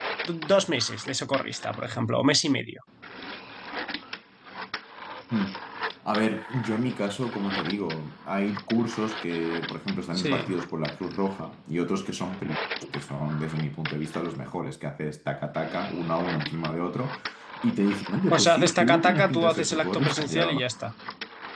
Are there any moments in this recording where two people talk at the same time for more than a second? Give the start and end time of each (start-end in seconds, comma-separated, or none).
18.4-20.5